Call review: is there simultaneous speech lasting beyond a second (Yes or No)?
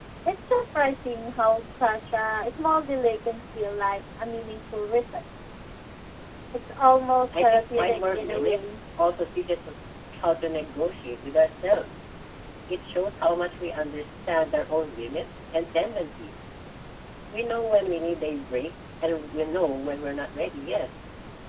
Yes